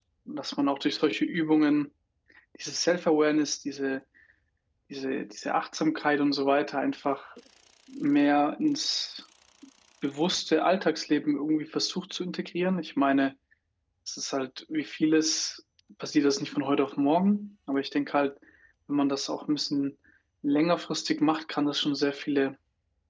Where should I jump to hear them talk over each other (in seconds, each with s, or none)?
none